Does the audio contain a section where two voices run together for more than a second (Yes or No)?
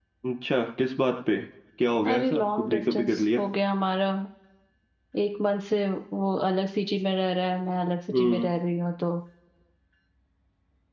Yes